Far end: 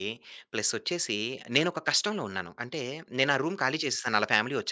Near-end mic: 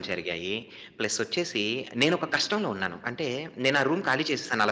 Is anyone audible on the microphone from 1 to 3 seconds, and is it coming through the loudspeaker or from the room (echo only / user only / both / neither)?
echo only